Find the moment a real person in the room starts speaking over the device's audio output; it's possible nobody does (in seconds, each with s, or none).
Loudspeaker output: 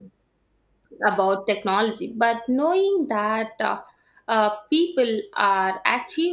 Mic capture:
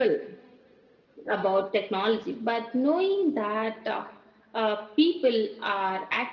none